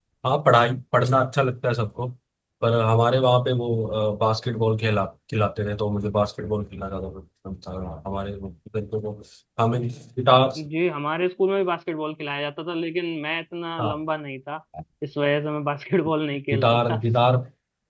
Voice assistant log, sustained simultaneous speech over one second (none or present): none